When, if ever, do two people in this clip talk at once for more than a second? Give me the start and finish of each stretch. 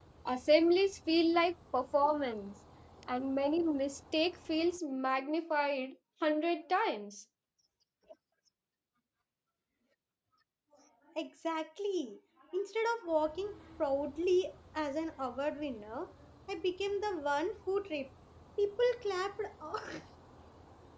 none

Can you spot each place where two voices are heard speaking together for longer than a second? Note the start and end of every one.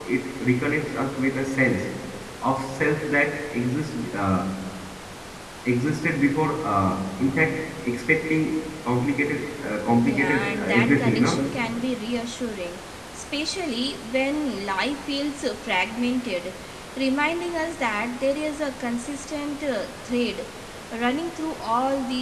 10.1-11.4

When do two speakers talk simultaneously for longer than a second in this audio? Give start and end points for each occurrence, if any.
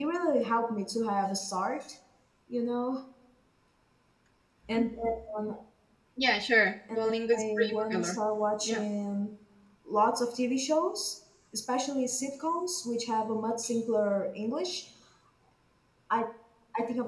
6.9-8.2

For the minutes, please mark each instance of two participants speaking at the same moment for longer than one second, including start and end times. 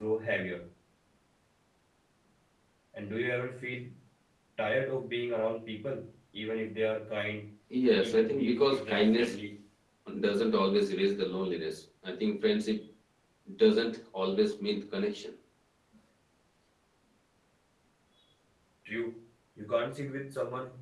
8.0-9.4

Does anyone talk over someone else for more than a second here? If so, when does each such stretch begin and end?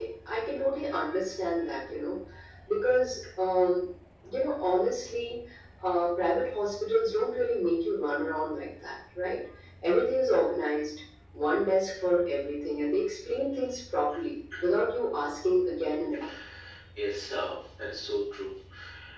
none

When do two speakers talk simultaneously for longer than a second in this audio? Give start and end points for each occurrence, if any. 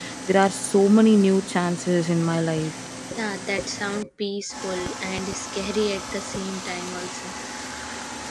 none

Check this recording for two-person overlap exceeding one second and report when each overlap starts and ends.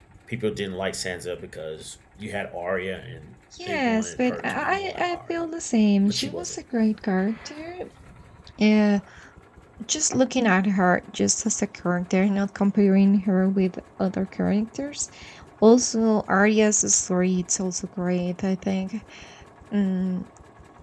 3.7-5.4

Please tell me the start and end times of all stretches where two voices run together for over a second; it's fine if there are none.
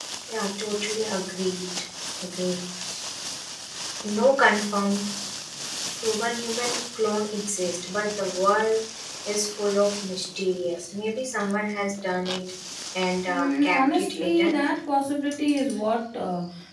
13.3-14.6

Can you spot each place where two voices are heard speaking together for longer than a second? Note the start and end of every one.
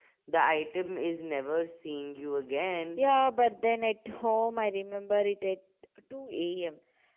none

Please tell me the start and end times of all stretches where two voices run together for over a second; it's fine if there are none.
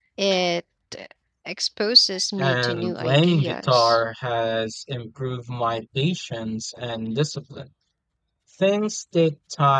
2.4-4.0

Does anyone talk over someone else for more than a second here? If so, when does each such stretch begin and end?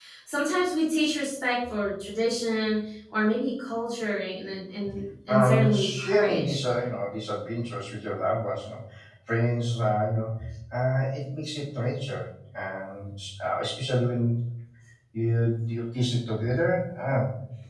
5.3-6.6

